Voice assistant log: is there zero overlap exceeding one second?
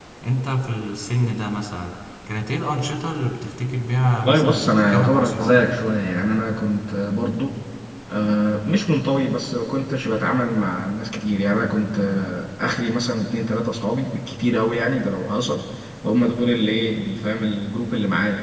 No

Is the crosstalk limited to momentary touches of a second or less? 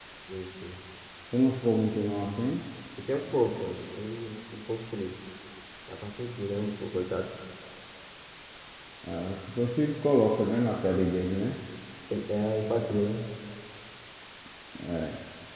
Yes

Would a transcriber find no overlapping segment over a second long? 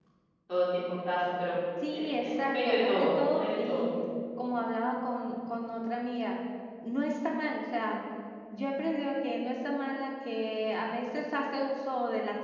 No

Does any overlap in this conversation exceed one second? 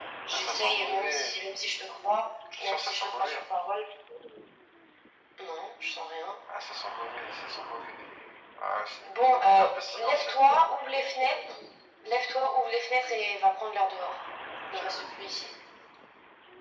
Yes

